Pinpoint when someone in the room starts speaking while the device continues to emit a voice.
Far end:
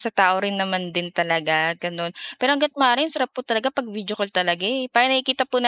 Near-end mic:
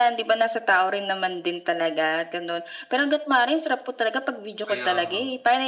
4.7 s

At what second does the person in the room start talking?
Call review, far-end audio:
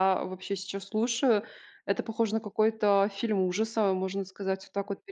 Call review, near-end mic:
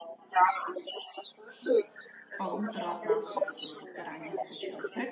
2.4 s

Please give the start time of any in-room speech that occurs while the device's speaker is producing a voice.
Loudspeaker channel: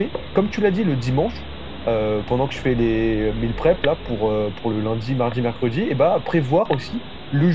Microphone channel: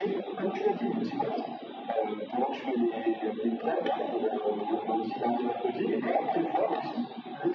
none

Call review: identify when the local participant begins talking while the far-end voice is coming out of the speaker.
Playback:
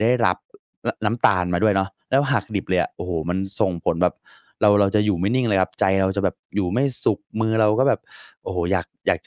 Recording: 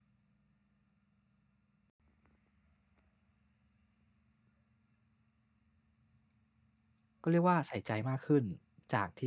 7.2 s

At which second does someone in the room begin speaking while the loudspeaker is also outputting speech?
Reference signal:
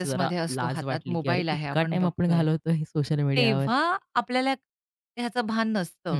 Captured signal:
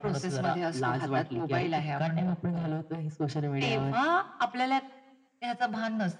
none

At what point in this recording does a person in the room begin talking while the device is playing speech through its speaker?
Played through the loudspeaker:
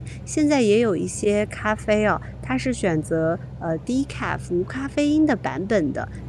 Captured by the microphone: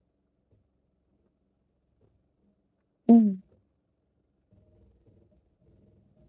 3.1 s

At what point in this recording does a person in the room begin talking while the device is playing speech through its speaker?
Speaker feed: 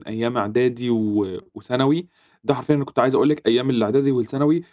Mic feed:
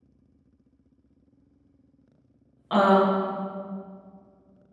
2.7 s

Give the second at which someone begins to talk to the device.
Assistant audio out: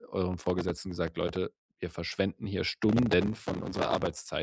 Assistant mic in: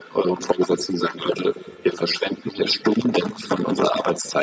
none

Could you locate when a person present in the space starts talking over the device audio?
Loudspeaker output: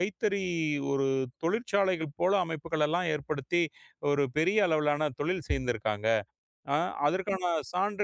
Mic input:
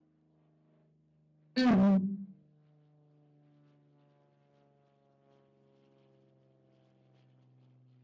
1.6 s

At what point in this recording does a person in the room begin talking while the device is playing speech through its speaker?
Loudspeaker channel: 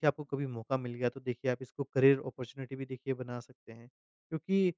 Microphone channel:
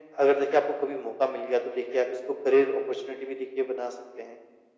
none

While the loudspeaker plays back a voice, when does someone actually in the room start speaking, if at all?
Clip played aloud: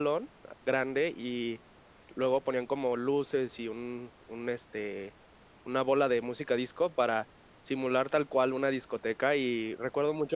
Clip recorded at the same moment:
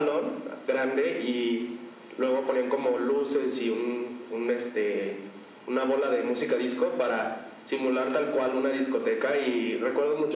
none

